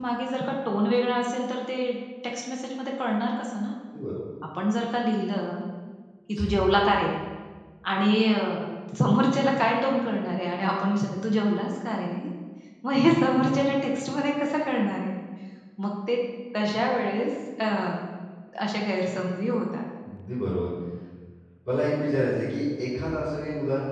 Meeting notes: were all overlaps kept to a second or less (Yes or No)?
Yes